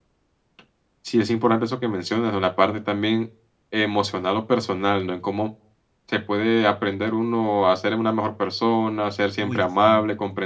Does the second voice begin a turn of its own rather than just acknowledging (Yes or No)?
No